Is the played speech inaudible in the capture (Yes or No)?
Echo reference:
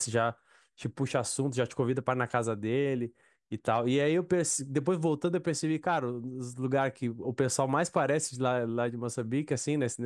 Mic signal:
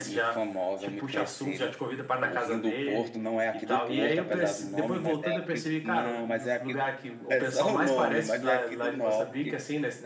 No